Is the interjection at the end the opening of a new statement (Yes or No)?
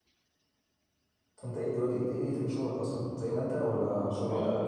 Yes